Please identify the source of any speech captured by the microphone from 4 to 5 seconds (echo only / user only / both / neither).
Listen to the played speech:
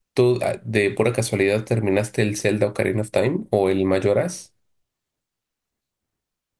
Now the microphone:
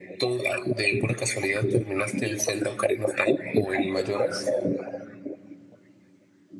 echo only